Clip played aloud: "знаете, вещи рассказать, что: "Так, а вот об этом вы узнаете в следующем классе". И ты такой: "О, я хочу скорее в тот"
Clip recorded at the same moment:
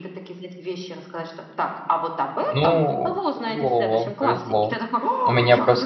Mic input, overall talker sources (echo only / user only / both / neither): both